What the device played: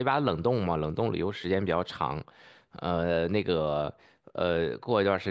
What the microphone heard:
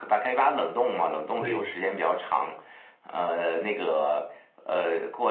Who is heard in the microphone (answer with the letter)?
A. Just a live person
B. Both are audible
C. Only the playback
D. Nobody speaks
B